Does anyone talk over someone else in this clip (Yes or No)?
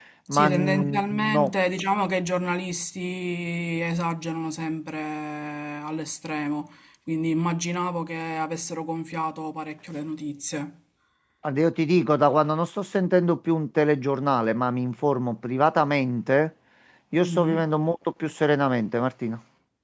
Yes